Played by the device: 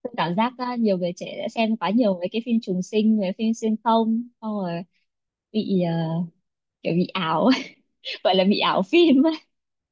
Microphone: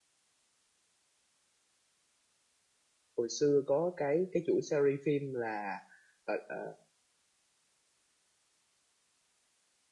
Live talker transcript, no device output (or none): hồi xưa có cái cái chủ series phim là ờ, ờ,